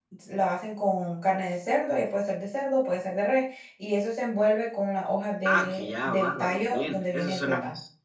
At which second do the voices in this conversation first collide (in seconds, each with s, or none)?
5.5 s